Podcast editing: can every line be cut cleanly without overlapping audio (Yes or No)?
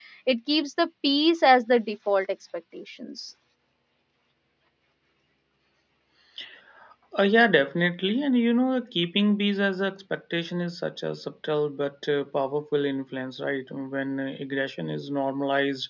Yes